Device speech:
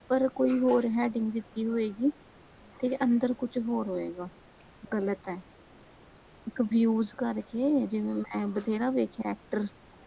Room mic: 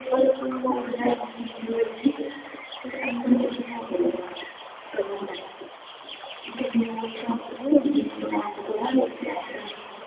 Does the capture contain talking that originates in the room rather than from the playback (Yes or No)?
No